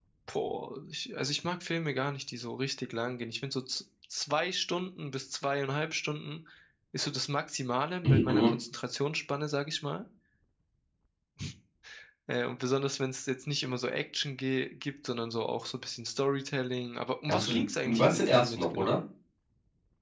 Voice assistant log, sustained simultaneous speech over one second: present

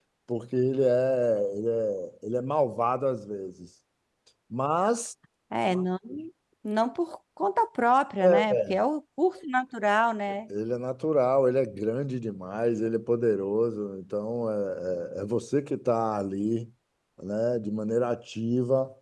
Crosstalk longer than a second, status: none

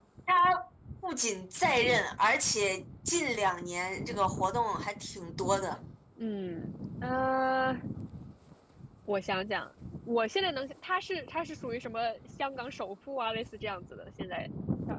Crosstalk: none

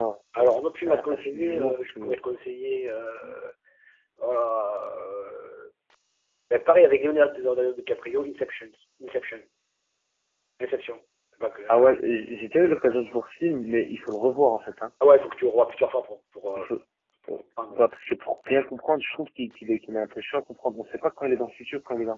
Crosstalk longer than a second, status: present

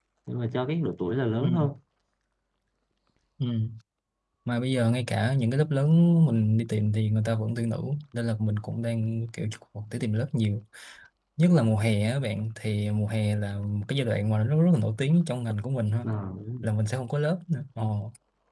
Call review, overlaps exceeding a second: none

